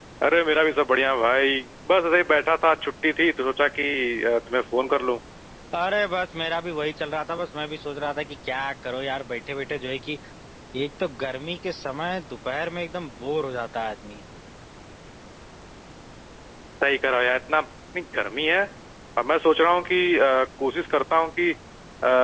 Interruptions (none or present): none